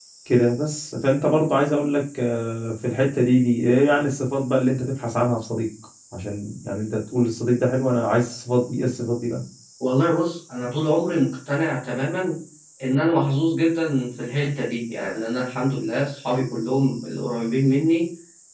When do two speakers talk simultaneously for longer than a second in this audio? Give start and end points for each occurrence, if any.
none

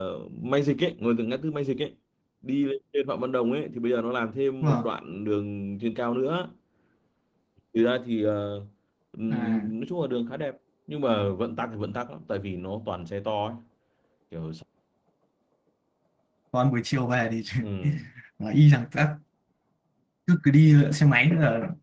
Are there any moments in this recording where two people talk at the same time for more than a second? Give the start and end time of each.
none

